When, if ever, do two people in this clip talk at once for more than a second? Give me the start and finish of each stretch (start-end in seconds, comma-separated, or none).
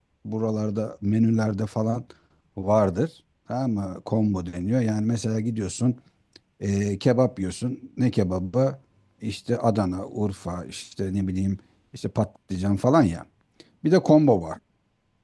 none